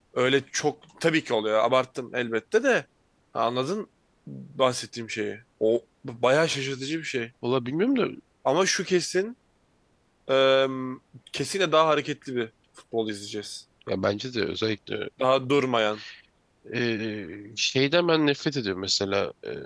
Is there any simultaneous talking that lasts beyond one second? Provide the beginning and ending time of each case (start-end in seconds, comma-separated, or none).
none